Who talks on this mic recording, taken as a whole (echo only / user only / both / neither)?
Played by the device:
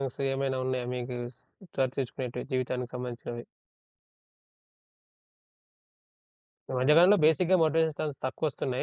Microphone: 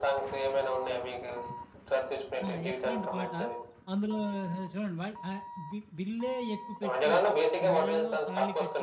both